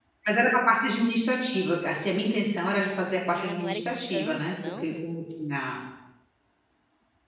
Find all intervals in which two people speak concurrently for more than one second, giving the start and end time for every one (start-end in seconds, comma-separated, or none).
3.3-5.1